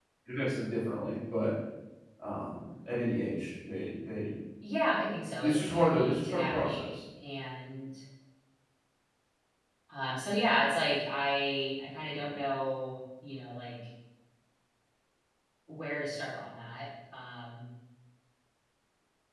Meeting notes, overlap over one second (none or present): present